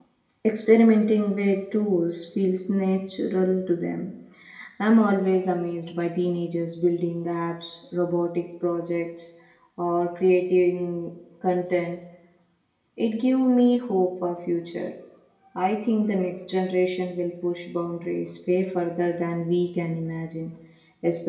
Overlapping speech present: No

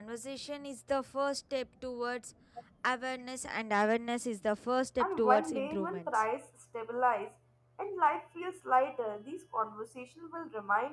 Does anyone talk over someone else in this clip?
Yes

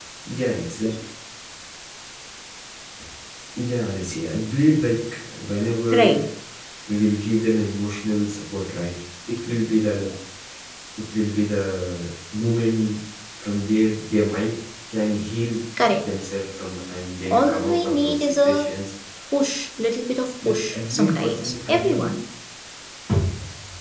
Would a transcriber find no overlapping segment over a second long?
No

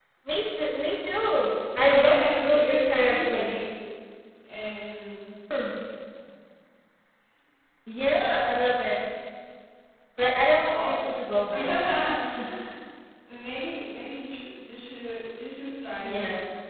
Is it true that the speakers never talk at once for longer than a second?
No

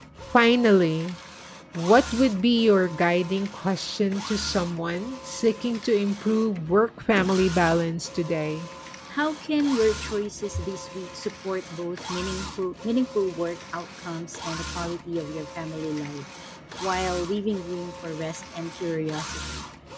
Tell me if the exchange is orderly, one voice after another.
Yes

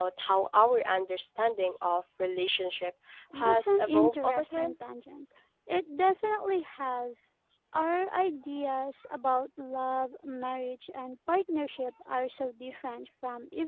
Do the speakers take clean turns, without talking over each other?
No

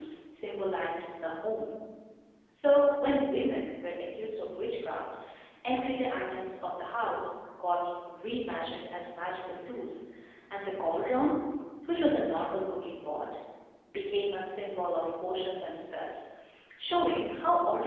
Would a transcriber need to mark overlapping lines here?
No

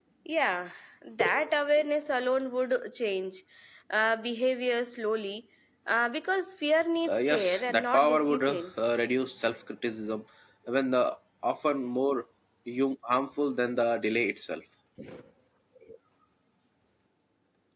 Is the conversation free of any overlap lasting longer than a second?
No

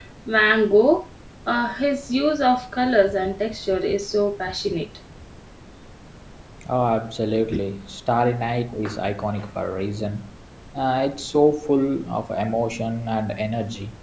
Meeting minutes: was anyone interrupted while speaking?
No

